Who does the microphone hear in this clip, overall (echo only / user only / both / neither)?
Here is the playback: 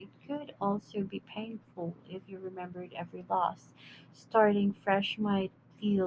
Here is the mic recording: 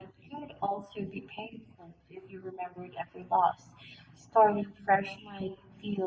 echo only